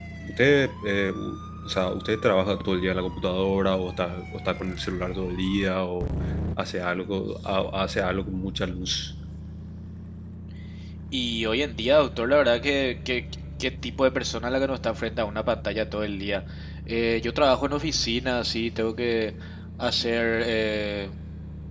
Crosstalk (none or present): none